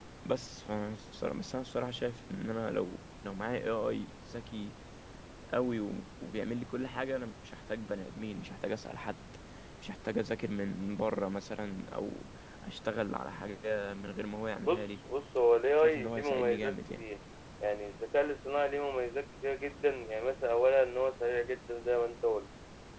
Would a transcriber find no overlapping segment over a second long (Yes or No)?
No